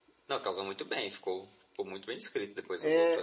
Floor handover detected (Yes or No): Yes